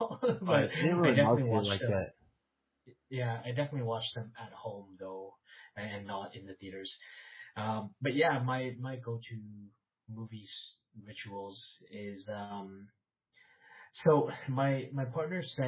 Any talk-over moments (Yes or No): Yes